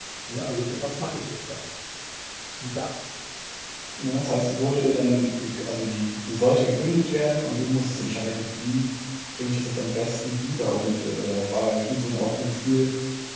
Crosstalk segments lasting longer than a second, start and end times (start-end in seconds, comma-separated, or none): none